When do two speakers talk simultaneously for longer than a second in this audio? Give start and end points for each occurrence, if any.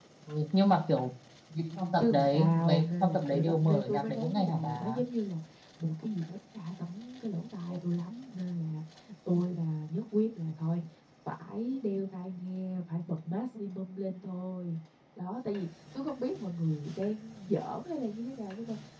2.0-5.0

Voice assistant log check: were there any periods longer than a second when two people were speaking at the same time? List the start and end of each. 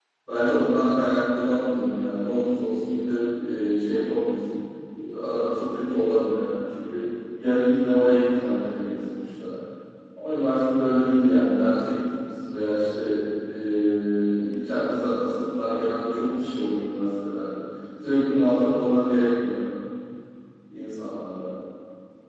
none

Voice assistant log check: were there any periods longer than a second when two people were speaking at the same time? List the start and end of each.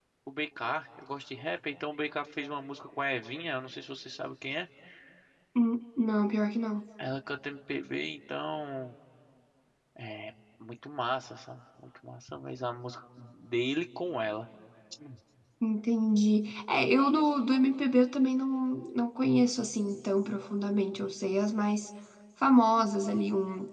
none

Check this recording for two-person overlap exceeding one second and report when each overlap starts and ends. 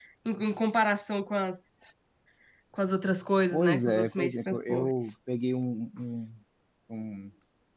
3.5-4.9

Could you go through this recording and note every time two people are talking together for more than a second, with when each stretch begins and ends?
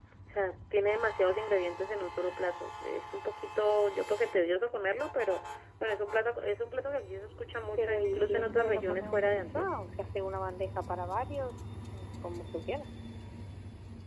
7.8-9.7

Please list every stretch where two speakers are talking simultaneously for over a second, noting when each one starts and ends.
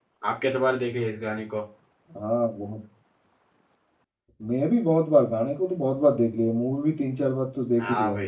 none

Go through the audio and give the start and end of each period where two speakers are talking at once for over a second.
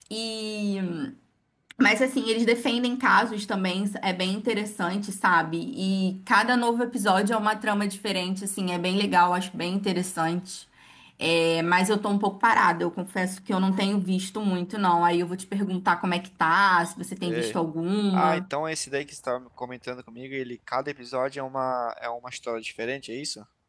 none

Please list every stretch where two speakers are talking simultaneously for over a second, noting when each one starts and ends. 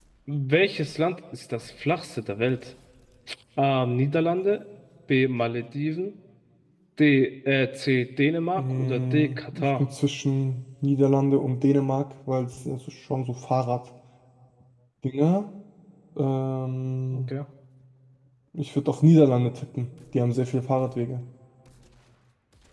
8.6-9.8

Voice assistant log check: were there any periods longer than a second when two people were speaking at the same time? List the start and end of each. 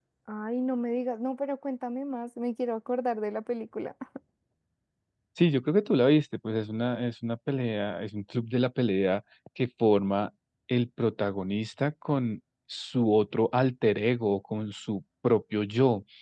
none

